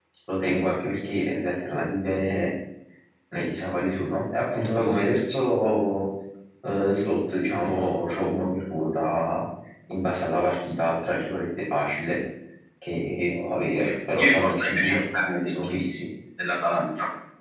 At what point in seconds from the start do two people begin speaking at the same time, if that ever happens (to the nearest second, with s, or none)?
14 s